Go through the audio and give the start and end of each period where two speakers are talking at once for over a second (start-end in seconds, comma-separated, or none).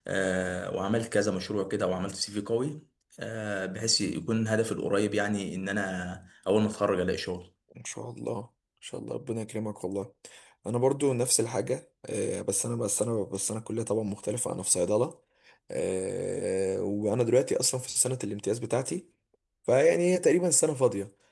none